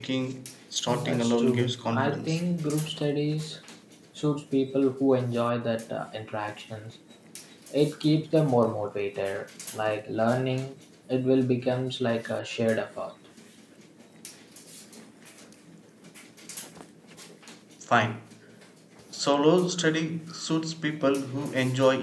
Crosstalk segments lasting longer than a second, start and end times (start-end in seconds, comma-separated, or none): 0.8-2.4